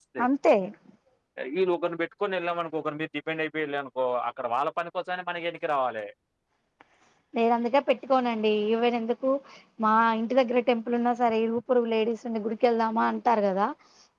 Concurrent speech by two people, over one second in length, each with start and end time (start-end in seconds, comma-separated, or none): none